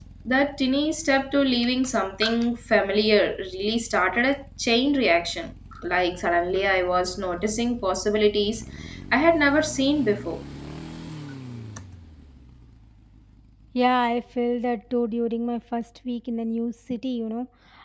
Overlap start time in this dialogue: none

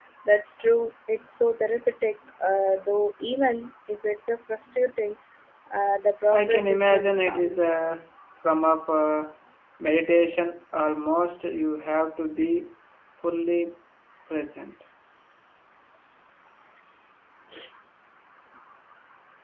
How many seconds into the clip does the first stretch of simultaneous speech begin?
6 s

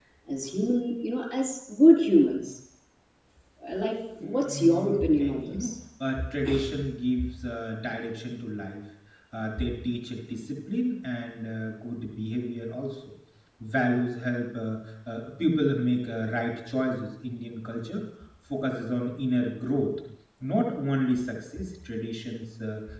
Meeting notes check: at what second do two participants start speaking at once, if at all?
4 s

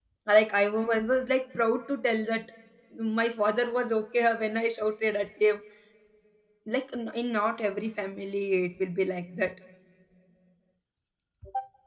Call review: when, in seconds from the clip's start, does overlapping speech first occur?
none

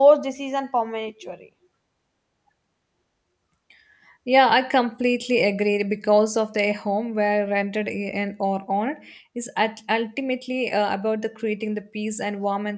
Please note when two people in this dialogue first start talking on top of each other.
none

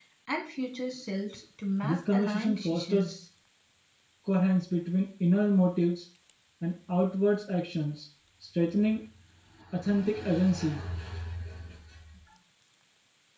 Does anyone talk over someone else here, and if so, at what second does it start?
2 s

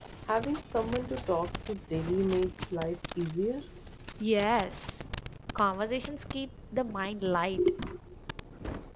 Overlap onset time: none

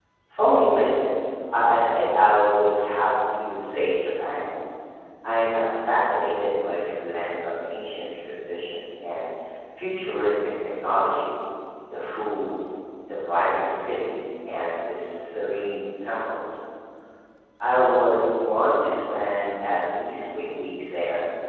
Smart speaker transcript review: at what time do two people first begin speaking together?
none

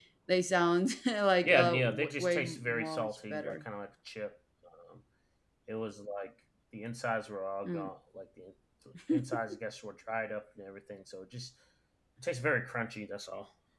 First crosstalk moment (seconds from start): 1 s

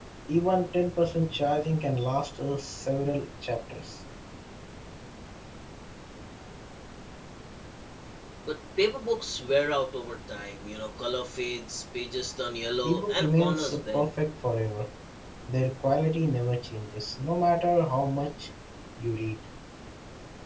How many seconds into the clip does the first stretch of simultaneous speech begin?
13 s

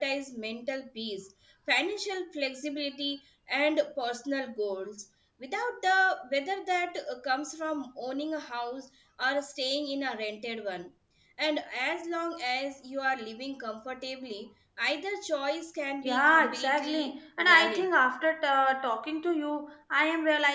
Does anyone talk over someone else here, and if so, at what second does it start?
16 s

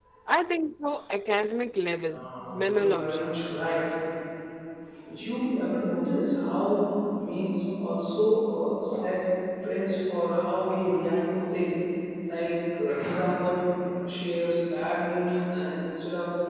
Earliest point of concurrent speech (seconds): 2 s

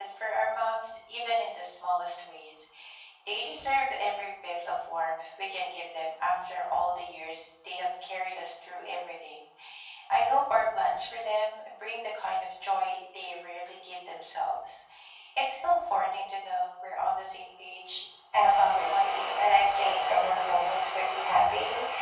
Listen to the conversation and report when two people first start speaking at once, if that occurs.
18 s

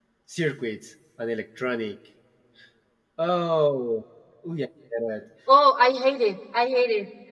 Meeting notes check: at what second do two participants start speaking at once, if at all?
none

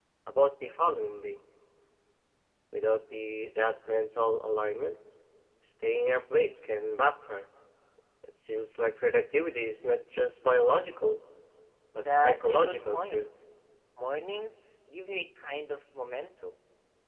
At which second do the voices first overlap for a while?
12 s

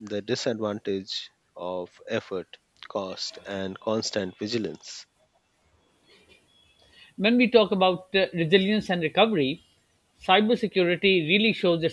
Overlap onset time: none

